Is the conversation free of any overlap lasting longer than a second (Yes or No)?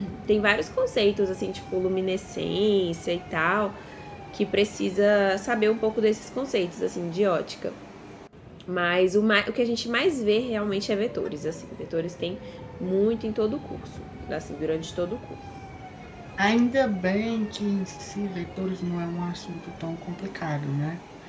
Yes